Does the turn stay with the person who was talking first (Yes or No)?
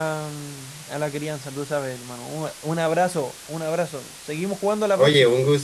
No